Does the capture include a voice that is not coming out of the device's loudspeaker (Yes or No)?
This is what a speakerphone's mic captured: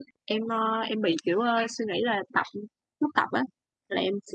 Yes